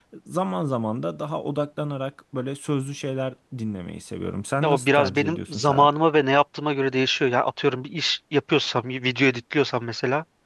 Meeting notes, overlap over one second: present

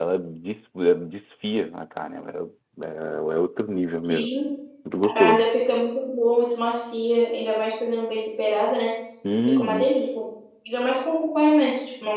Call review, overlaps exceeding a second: none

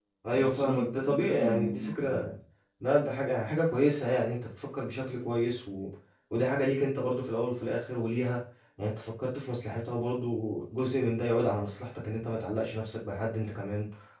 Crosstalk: present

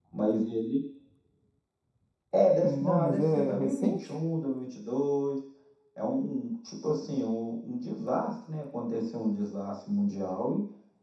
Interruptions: present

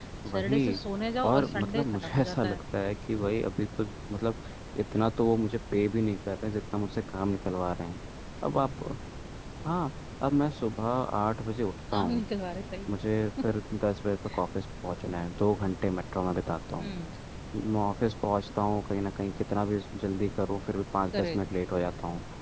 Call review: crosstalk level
present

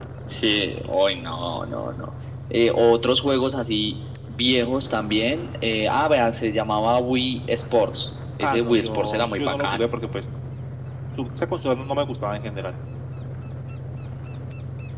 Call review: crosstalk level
present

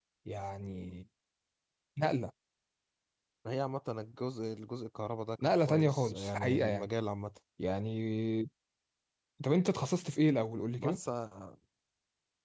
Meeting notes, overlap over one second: present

